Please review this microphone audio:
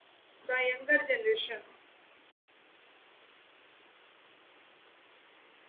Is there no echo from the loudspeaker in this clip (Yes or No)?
Yes